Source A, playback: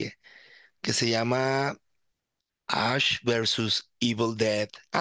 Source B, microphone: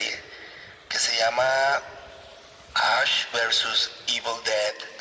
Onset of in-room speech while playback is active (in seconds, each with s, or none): none